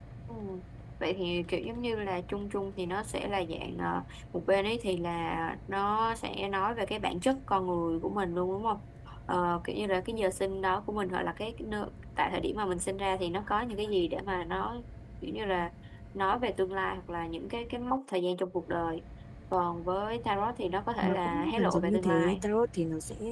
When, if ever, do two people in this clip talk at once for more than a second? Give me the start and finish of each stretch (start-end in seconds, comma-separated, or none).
21.0-22.5